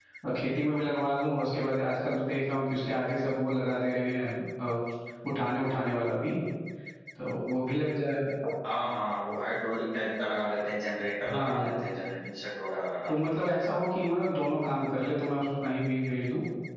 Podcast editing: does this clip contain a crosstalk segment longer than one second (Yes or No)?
No